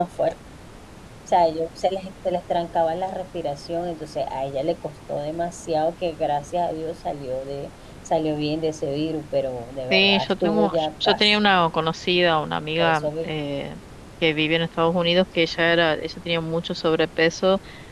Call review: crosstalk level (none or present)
present